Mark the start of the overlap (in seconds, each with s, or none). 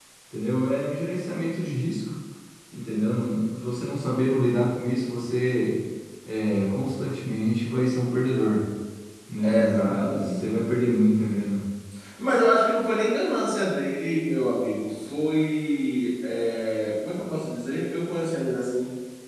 9.4 s